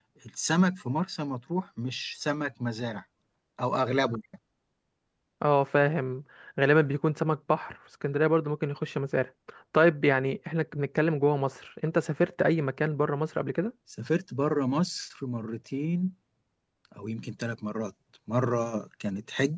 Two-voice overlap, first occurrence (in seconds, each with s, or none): none